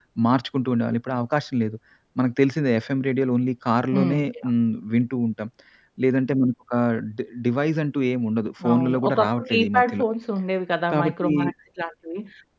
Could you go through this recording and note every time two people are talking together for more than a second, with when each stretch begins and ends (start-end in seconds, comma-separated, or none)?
8.6-10.0